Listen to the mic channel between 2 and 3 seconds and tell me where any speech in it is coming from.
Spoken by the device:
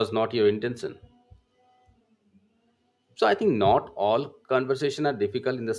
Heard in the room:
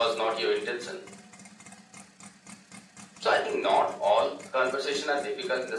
neither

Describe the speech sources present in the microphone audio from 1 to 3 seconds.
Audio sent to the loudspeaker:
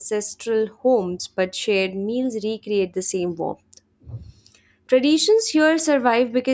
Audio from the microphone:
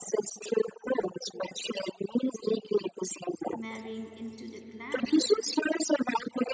echo only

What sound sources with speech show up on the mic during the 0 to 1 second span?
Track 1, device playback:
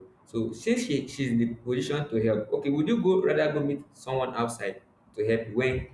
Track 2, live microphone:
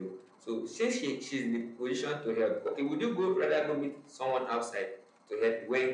echo only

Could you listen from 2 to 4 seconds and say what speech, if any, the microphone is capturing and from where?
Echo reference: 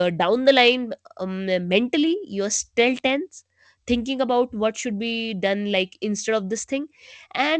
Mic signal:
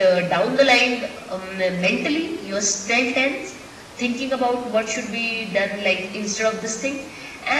echo only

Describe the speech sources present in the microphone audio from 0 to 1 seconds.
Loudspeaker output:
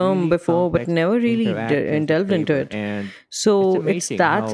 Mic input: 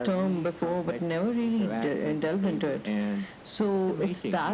echo only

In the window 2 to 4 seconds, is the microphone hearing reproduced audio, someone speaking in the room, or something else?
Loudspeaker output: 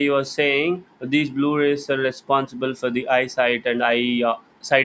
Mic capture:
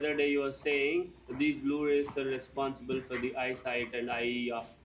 echo only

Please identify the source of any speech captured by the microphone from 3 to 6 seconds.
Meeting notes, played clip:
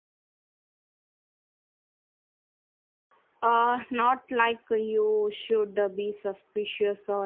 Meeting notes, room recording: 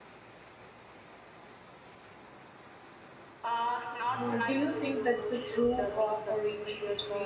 both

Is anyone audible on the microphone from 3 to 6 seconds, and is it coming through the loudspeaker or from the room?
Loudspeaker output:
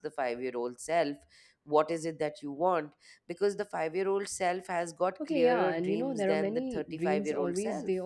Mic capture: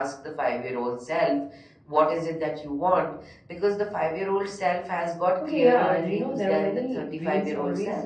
echo only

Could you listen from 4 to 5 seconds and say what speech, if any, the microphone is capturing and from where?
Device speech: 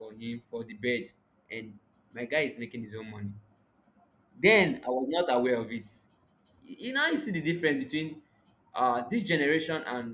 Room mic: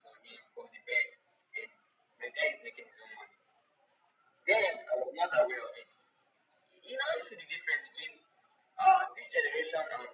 echo only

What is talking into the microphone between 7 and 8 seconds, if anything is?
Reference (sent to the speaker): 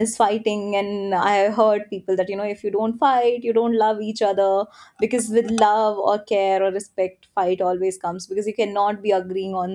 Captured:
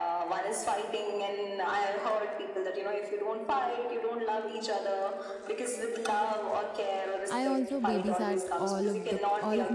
both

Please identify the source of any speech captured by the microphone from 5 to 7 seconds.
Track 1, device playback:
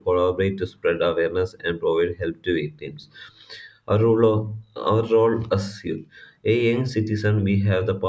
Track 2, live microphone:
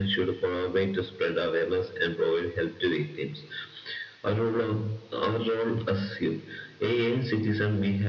echo only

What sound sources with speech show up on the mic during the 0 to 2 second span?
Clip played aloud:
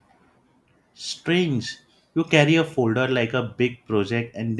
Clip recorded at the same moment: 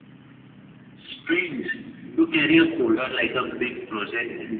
echo only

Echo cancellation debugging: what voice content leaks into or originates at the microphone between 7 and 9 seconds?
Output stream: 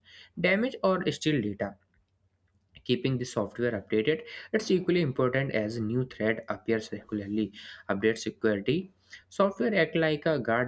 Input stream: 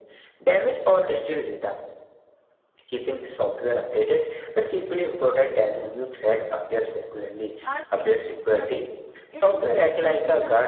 both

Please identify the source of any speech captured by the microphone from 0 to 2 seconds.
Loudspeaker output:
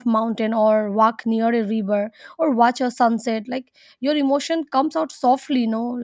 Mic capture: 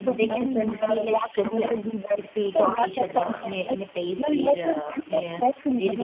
both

